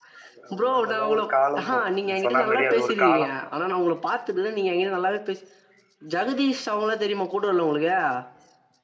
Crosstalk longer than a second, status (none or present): present